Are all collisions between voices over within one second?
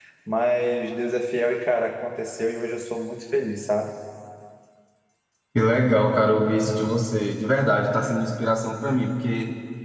Yes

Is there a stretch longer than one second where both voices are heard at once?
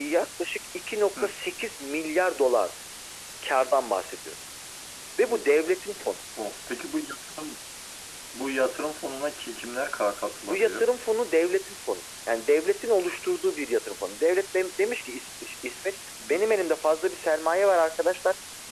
No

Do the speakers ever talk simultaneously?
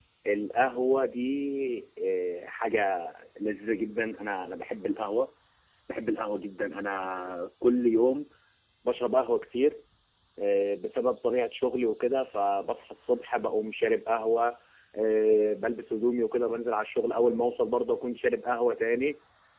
No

